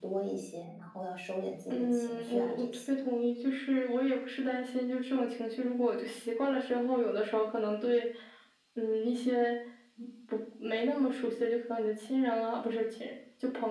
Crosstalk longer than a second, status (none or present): present